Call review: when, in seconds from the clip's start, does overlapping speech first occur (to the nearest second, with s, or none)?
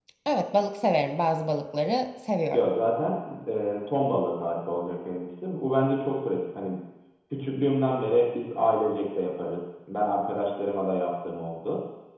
none